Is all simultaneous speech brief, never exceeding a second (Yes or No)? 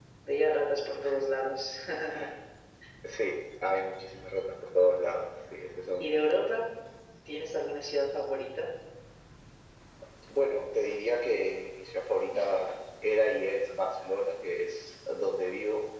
Yes